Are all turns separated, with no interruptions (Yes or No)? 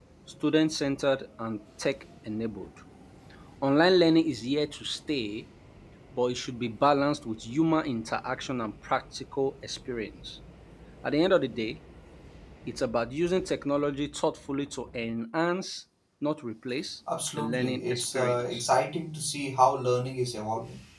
No